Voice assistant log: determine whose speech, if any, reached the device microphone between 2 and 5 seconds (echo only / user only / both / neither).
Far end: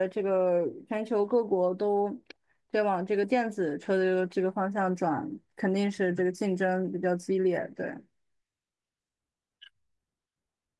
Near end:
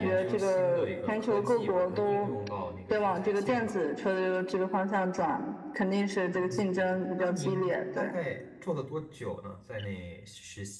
both